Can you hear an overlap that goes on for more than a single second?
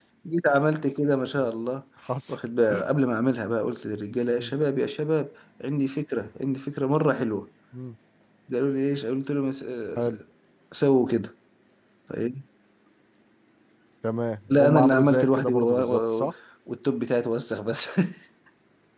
Yes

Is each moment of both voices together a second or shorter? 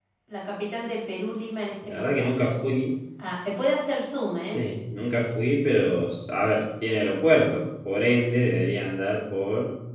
Yes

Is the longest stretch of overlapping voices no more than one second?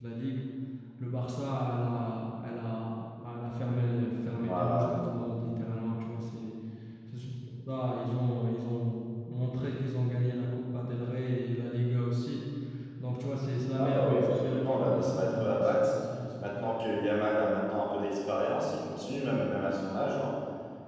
No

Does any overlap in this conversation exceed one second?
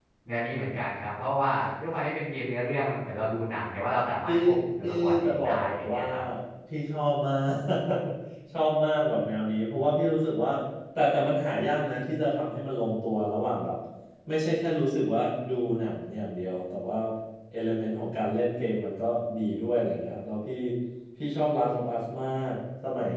Yes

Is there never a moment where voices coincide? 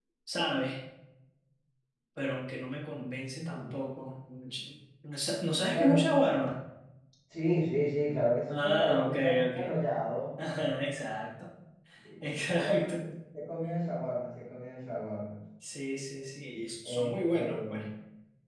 No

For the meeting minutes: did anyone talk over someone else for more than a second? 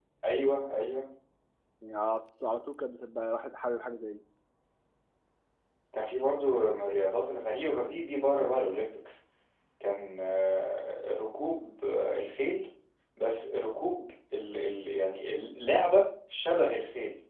No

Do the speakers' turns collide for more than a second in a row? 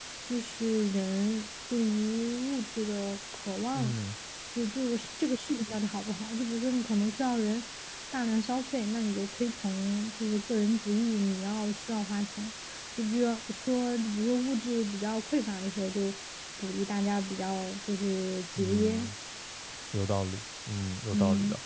No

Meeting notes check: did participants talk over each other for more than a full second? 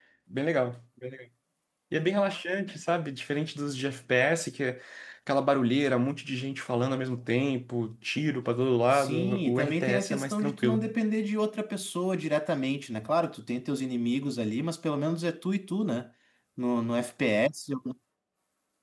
Yes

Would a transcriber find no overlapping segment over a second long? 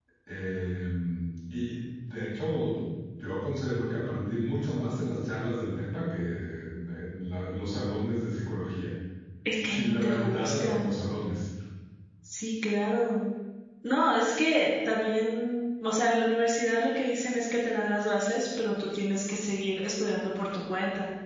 No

